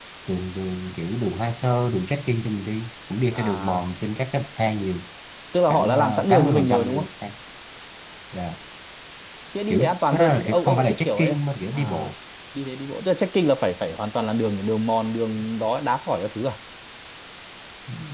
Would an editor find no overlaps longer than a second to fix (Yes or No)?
No